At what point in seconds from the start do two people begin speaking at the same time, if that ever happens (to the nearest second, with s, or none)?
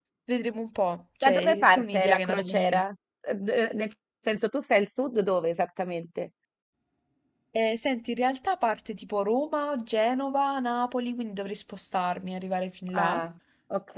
1 s